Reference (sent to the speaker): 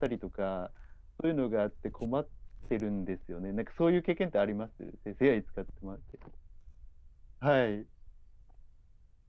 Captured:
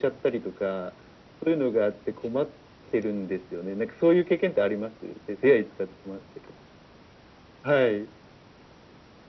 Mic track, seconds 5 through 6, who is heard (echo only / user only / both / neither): echo only